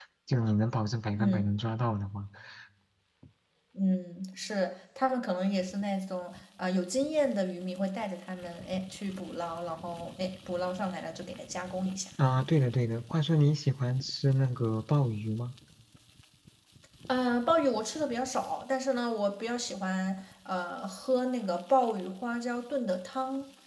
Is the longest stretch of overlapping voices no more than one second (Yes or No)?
Yes